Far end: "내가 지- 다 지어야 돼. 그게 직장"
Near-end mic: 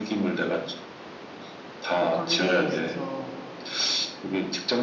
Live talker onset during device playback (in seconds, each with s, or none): 2.0 s